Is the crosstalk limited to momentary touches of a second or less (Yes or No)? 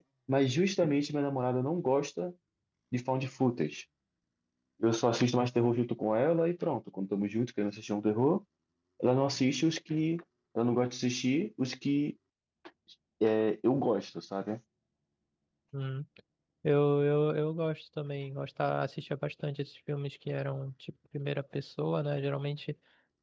Yes